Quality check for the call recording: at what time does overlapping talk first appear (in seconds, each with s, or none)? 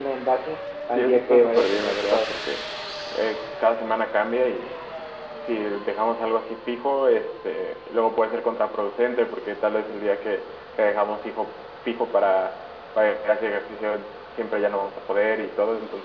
0.9 s